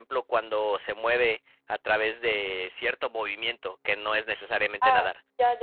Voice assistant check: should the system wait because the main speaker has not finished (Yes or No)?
No